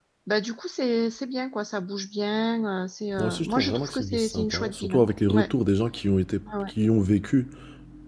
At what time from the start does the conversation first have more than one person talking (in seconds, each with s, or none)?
3.1 s